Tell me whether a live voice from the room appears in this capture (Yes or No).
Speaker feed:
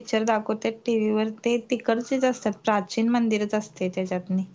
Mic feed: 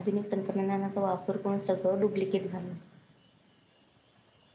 Yes